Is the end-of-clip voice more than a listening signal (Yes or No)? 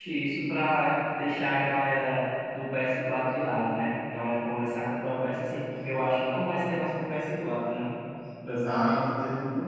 Yes